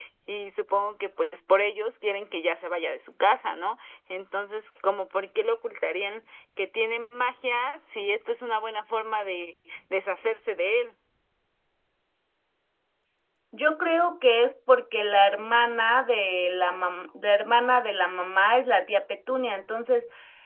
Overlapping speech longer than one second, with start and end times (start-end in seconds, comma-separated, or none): none